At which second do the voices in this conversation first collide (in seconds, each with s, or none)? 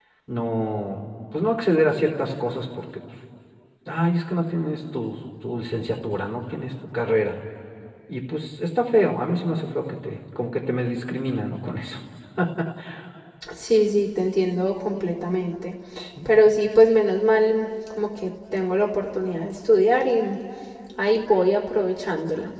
none